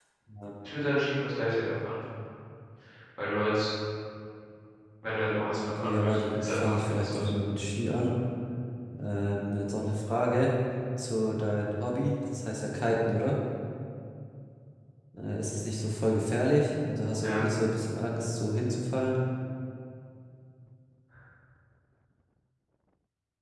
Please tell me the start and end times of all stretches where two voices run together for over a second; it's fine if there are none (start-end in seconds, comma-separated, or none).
5.5-7.4